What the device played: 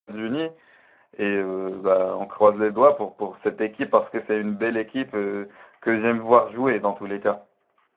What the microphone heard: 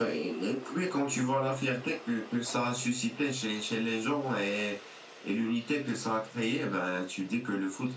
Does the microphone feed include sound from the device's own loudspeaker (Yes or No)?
No